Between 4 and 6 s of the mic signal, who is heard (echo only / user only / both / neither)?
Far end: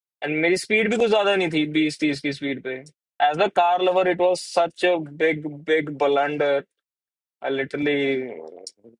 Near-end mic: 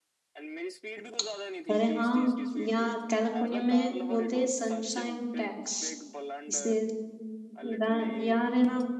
both